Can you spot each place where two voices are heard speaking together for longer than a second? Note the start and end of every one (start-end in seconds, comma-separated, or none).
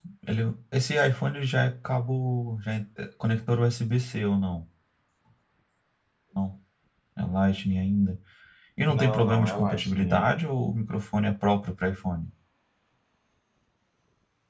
8.9-10.4